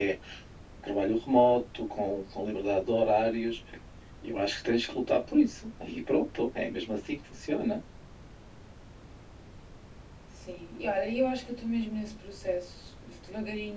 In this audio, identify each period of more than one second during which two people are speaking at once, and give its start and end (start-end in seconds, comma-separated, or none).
none